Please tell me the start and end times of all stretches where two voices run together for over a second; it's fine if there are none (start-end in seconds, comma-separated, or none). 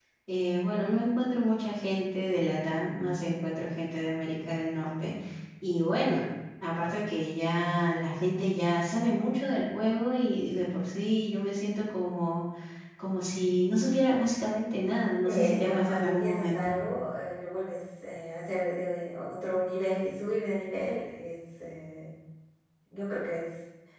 15.2-16.7